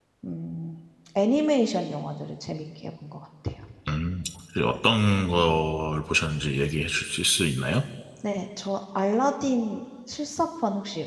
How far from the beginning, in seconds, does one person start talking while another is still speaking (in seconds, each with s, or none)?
none